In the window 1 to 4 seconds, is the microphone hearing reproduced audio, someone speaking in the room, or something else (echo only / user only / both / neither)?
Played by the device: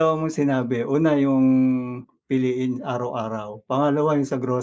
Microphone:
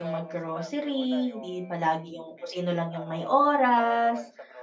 both